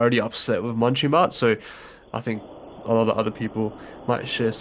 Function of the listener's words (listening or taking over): taking over